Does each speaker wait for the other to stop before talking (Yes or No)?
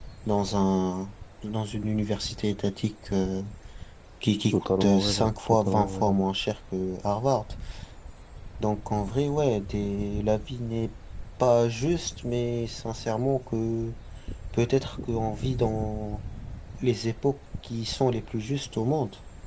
No